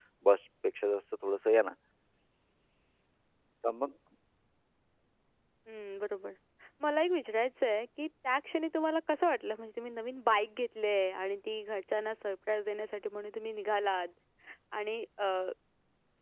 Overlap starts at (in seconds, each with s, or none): none